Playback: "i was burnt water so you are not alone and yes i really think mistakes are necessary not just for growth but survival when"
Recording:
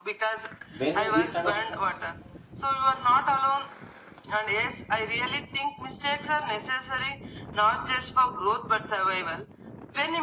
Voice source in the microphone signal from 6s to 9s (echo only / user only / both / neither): echo only